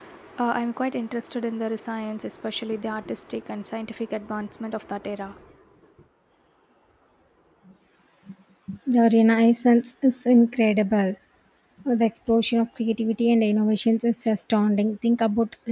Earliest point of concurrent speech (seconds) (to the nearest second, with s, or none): none